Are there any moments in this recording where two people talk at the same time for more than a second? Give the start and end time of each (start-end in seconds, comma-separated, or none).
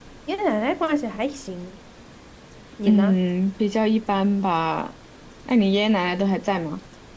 none